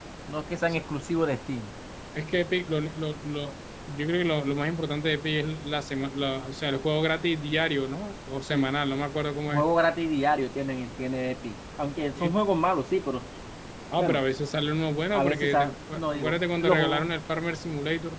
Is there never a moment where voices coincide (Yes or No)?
No